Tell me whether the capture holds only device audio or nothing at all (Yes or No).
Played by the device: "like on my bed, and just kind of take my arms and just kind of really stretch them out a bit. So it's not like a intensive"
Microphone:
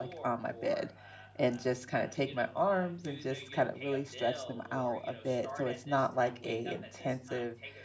No